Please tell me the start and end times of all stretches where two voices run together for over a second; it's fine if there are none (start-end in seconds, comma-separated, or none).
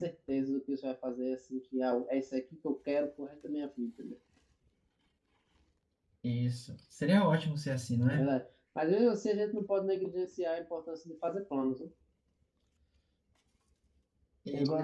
none